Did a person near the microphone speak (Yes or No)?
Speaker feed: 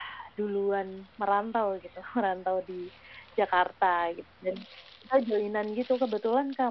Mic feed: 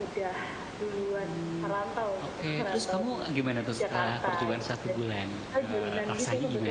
Yes